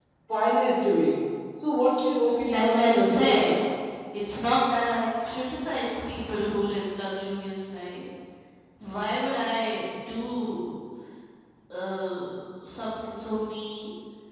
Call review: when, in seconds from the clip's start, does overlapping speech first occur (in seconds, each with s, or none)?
2.2 s